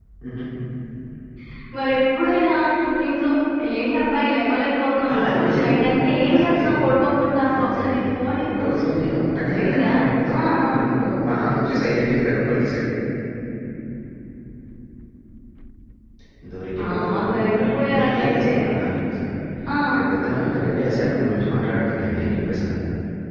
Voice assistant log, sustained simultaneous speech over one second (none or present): present